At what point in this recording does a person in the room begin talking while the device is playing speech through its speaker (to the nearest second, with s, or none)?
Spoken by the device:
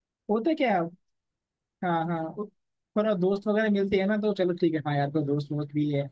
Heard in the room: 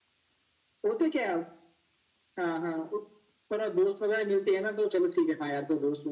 none